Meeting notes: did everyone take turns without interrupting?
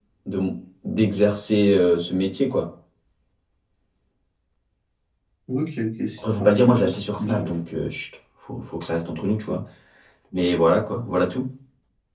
No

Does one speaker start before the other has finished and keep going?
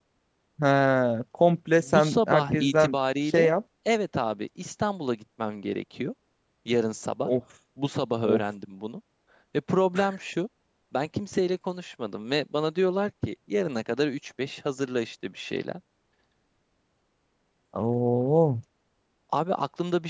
Yes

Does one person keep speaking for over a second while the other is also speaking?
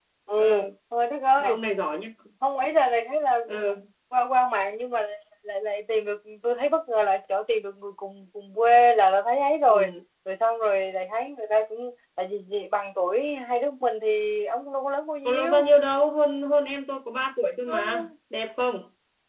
No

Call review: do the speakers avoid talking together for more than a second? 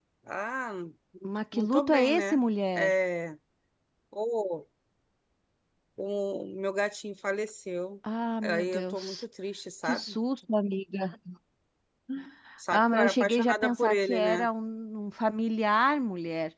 No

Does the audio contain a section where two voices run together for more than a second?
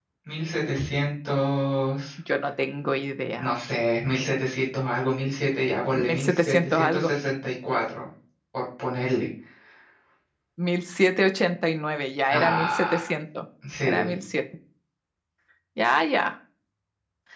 Yes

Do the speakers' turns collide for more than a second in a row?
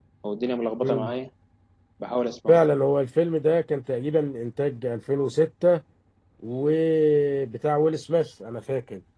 No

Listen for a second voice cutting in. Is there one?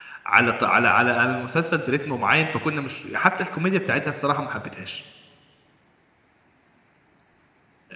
No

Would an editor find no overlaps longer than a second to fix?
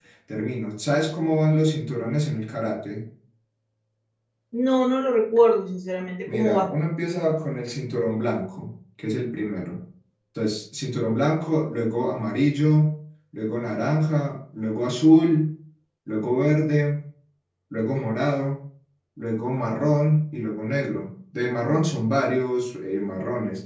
Yes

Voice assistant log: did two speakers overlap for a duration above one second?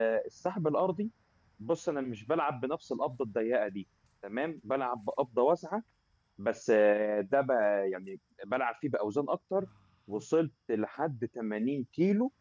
No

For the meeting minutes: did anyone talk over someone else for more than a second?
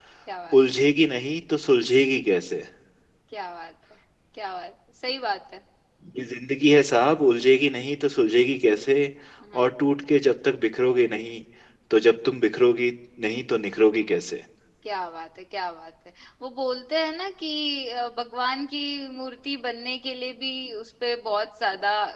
No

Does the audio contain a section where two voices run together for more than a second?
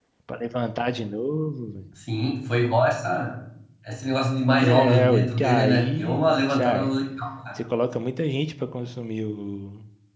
Yes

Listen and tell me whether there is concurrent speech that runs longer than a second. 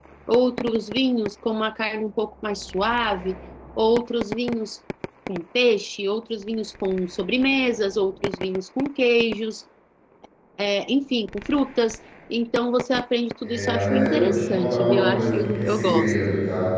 Yes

